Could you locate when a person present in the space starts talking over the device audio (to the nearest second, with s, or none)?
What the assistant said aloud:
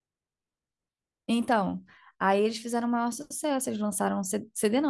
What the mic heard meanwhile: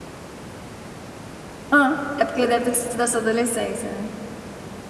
2 s